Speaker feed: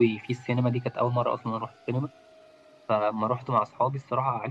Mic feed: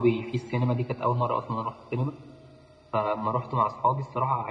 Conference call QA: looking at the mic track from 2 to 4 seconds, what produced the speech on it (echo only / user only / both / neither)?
echo only